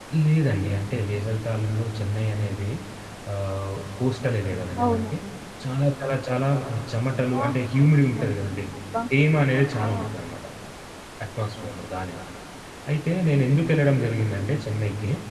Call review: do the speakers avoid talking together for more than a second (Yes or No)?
Yes